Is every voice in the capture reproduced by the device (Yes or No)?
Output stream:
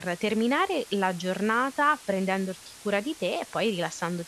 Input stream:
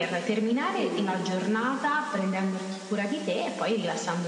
No